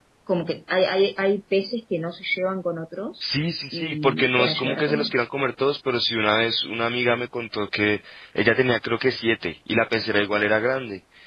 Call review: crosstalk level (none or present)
present